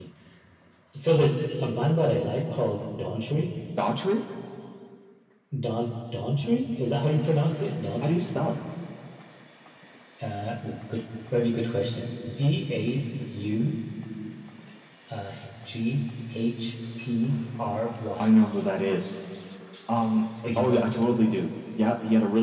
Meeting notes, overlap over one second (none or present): none